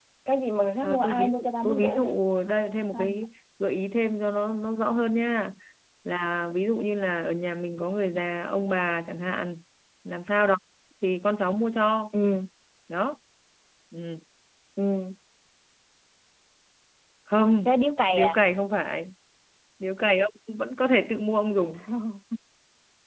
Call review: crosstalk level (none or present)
present